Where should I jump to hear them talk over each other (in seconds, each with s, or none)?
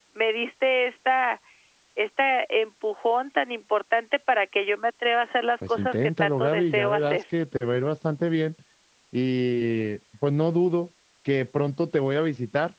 5.6 s